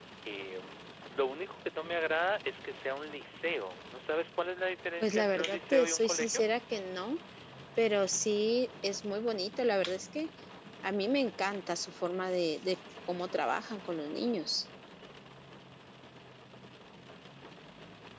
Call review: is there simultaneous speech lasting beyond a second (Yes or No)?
Yes